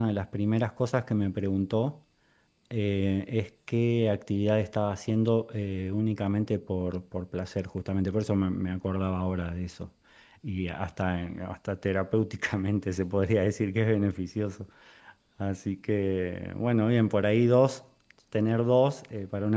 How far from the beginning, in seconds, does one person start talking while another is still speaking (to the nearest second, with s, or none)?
none